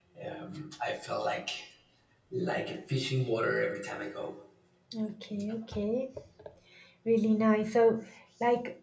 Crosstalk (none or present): none